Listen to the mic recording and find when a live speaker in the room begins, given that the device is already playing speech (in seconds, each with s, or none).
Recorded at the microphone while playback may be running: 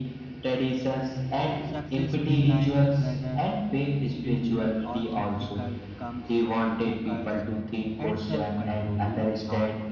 1.6 s